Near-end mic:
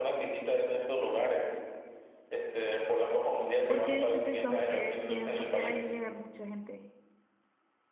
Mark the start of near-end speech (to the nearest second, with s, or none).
4 s